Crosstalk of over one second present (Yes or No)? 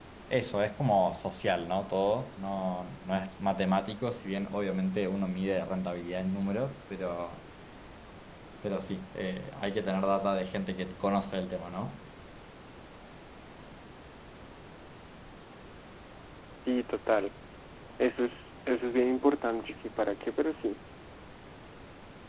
No